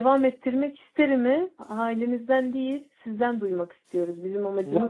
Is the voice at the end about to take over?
Yes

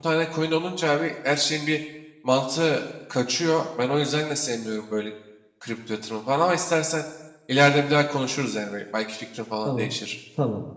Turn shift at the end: Yes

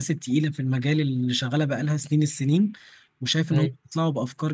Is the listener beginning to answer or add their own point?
No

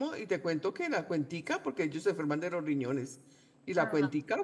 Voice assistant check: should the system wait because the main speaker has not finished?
Yes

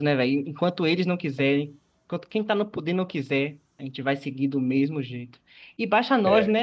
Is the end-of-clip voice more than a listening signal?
No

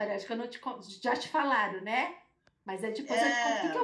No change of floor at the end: Yes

